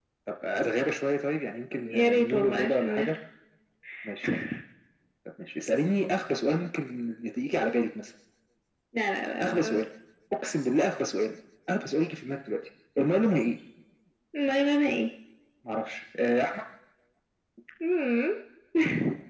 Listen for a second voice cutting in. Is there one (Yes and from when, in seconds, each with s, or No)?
Yes, from 1.8 s